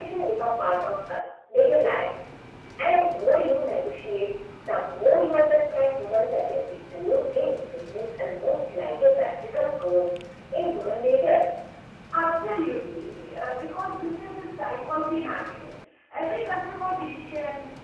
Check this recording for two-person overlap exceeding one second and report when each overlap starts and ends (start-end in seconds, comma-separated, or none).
none